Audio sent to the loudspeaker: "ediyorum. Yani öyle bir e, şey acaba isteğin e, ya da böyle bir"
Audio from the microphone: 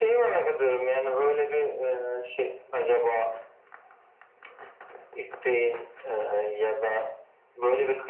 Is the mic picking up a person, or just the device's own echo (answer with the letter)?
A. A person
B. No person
B